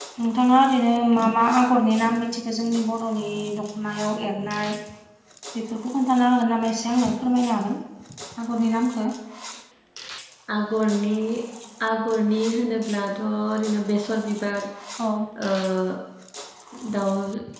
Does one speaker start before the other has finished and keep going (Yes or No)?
No